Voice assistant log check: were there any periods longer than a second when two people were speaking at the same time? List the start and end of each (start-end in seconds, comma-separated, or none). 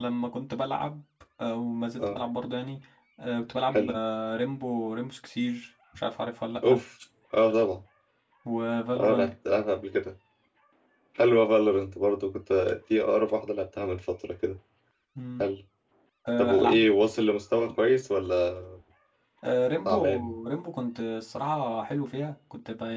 none